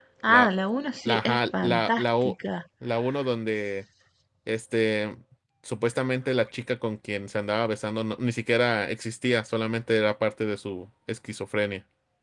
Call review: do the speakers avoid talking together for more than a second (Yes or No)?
No